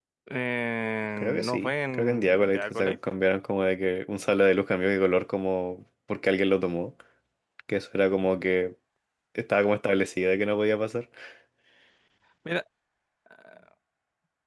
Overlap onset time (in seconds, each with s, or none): 1.2 s